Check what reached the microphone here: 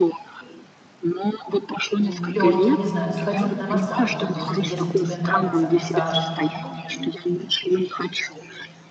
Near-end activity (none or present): present